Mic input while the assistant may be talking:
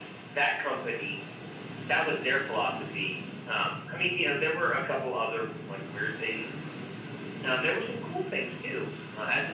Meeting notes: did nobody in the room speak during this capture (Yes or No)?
Yes